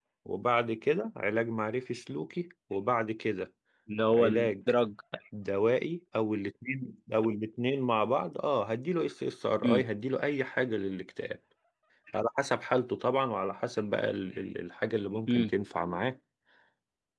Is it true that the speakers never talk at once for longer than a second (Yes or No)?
Yes